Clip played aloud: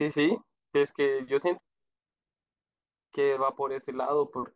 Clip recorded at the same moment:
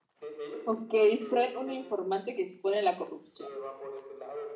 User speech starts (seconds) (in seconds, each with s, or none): 0.6 s